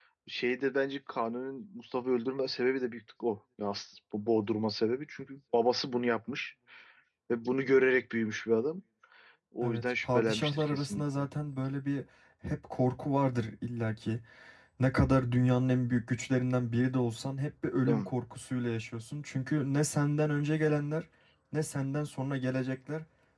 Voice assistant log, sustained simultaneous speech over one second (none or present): present